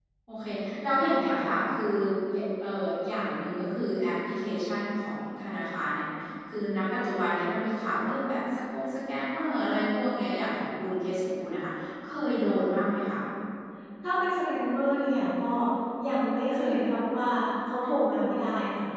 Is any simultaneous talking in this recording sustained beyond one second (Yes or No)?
No